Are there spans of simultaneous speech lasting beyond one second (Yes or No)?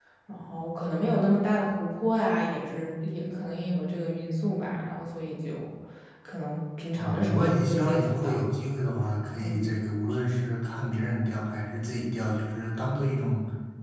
Yes